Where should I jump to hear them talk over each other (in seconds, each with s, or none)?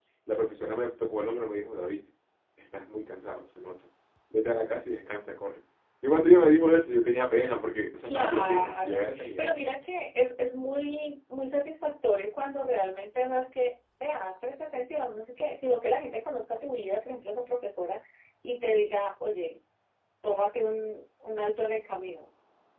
8.1 s